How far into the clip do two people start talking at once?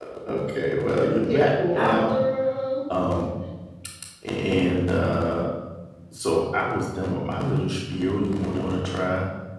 0.9 s

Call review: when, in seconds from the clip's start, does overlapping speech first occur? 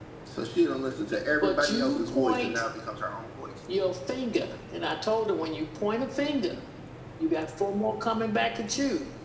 1.4 s

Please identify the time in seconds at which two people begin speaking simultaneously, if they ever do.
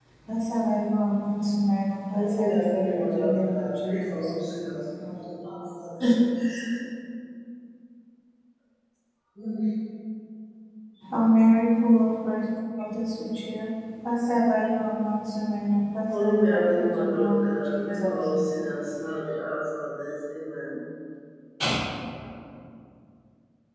2.1 s

